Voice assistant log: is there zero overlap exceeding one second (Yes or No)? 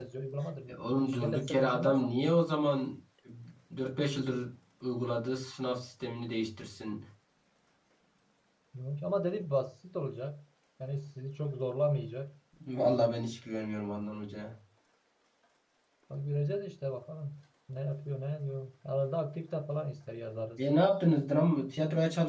No